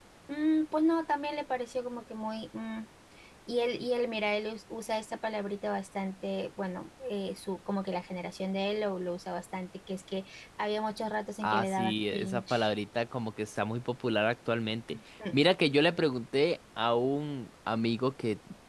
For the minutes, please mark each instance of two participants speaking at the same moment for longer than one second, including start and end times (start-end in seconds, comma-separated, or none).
11.4-12.7